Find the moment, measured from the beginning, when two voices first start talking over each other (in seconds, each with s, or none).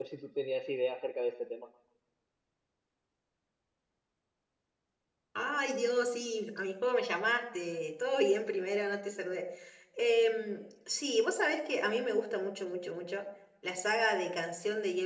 none